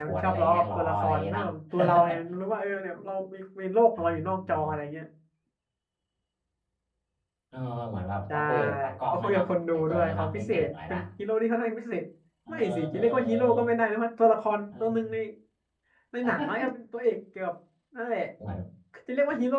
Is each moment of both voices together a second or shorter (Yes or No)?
No